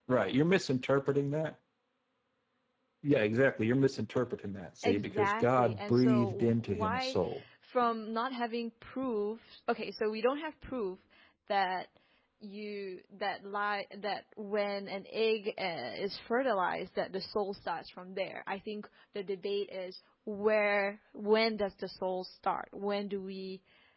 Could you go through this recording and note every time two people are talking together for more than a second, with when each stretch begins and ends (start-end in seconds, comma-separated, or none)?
4.8-7.2